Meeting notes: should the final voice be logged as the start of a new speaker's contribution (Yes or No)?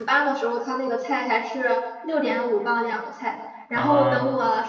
No